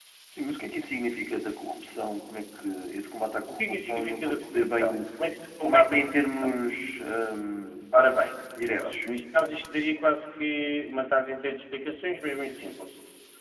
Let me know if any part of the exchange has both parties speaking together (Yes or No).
Yes